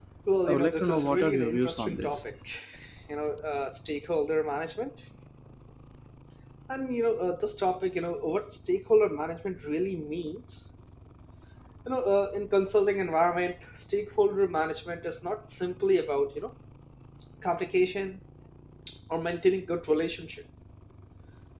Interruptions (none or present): present